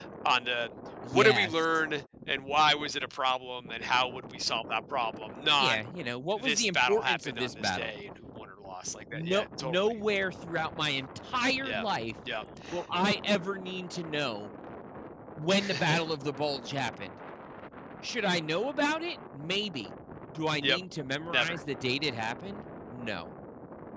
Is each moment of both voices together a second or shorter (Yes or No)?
No